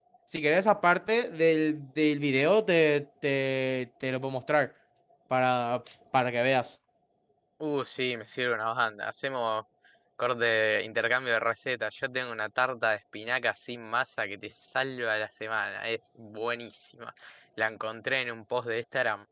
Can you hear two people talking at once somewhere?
No

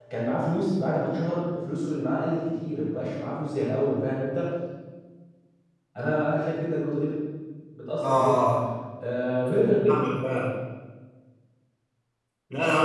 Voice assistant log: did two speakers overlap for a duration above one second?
No

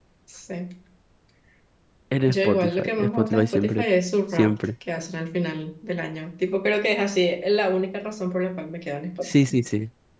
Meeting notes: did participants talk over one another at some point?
Yes, from 2.3 s

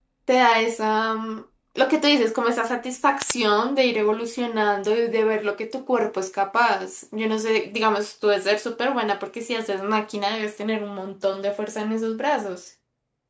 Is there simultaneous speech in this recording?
No

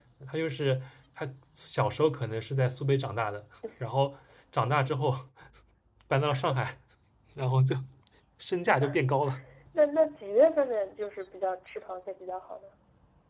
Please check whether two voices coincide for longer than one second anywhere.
No

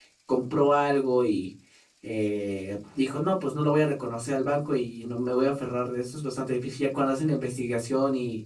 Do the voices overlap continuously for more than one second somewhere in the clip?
No

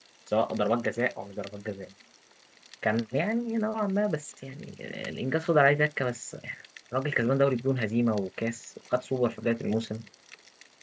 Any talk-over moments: No

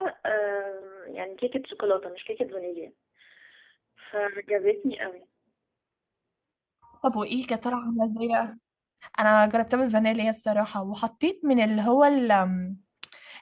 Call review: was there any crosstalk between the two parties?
No

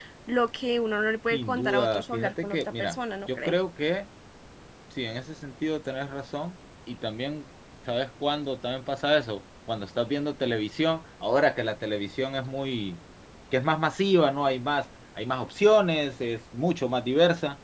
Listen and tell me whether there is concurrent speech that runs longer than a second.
Yes, from 1.3 s

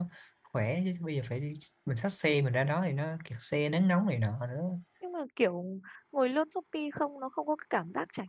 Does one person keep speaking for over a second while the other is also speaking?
No

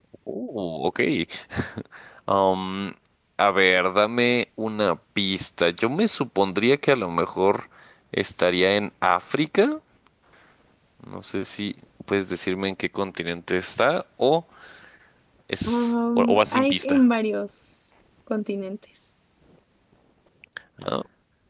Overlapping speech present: Yes, from 15.7 s

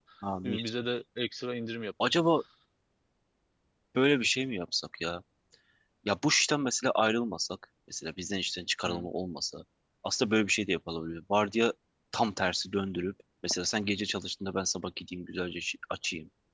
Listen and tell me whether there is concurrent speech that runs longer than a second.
No

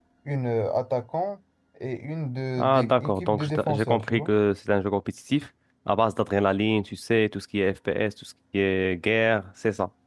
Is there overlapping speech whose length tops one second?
Yes, from 2.6 s

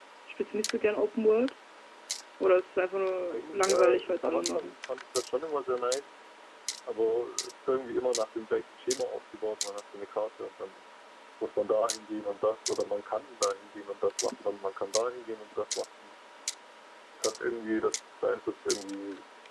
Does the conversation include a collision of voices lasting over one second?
Yes, from 3.3 s

